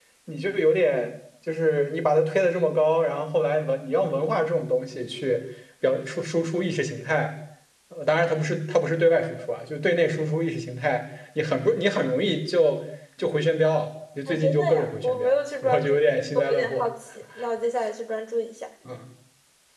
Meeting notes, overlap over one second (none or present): present